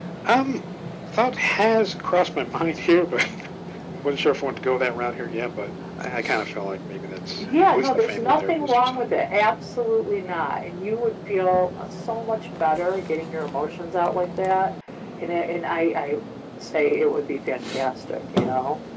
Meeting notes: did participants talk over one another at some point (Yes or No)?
Yes